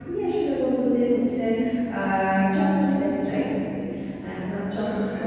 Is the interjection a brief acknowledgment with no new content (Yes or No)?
No